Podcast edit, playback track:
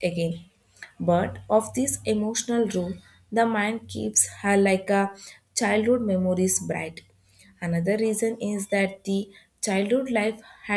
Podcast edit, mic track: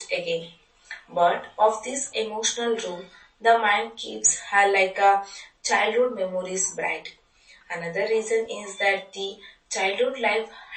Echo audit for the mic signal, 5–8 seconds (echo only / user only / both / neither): echo only